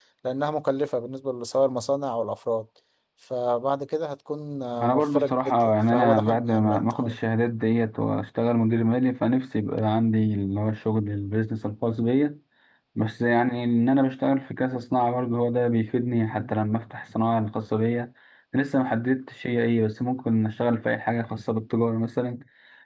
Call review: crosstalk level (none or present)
present